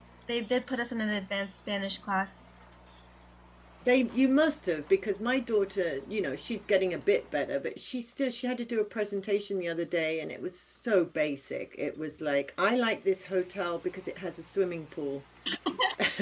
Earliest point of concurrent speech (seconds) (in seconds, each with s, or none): none